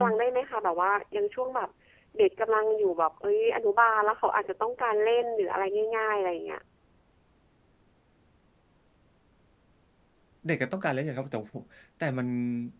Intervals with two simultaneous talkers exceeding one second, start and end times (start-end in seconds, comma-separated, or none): none